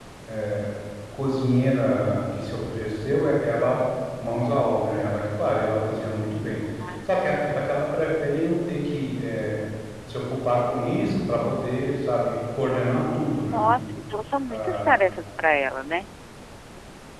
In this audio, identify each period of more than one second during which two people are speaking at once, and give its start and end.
none

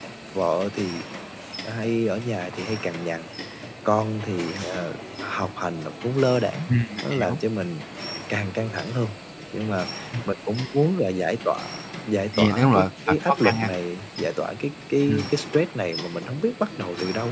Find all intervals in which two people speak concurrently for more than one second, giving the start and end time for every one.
12.4-13.7

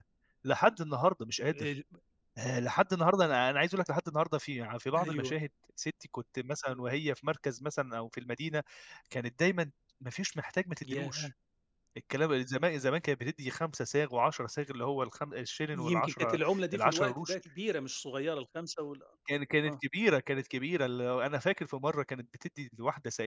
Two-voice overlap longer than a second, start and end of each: 15.7-17.4

